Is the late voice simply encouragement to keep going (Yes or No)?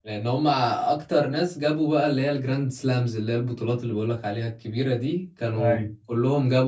Yes